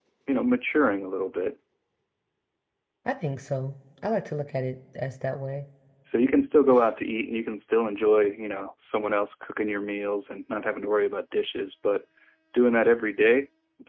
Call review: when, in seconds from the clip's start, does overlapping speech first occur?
none

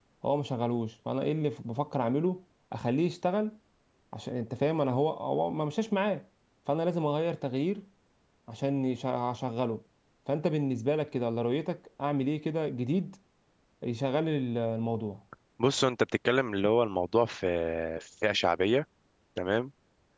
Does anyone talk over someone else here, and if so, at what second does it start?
none

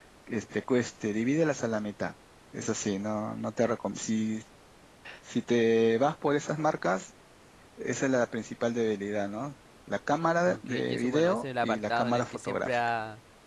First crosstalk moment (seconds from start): 10 s

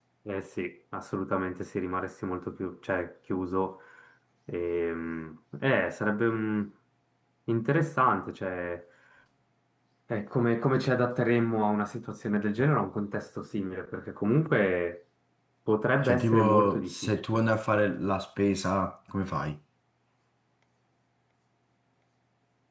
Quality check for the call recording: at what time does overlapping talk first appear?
16 s

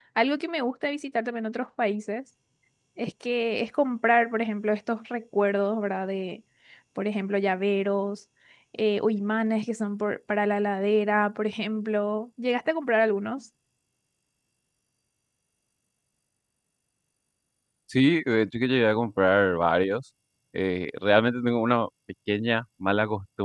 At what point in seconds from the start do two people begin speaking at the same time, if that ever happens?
none

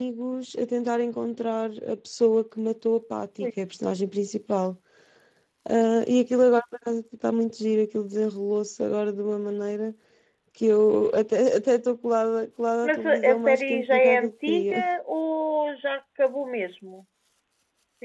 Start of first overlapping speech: 13 s

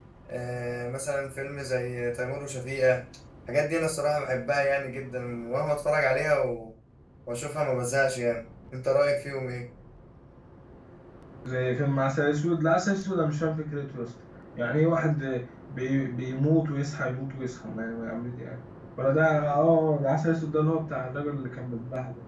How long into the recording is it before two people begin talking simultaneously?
none

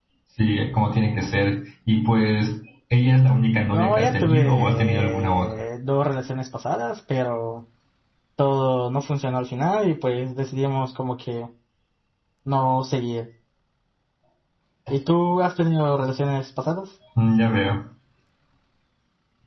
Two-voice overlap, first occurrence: 4 s

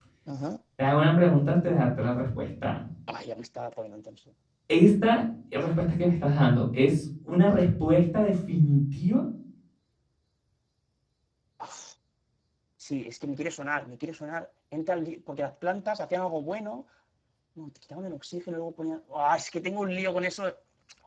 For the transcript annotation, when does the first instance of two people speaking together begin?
none

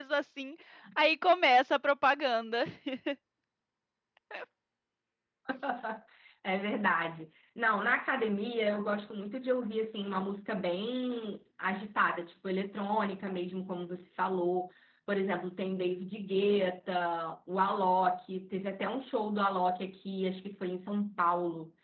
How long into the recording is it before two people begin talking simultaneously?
none

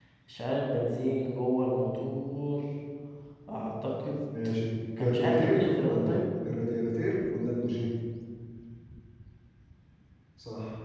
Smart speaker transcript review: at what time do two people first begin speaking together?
5 s

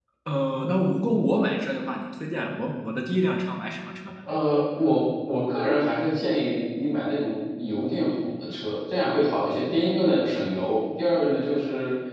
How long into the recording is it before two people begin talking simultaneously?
none

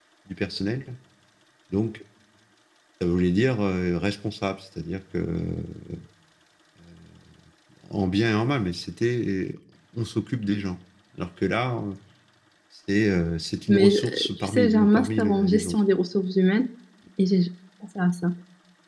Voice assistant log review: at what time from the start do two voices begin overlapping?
14 s

